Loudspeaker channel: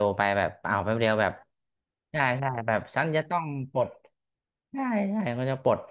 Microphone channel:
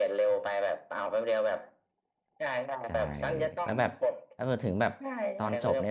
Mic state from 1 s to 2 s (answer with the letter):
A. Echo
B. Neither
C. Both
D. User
A